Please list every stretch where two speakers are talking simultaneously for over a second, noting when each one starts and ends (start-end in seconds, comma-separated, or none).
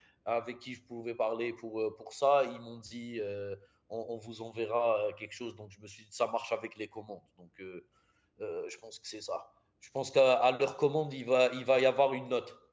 none